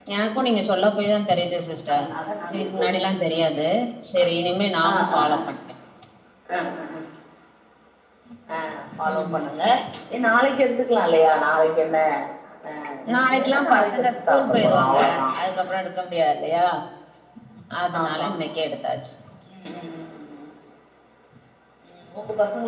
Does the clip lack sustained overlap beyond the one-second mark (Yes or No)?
No